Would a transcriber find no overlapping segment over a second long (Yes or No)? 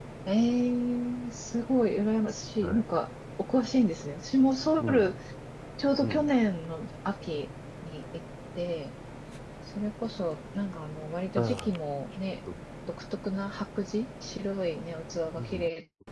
Yes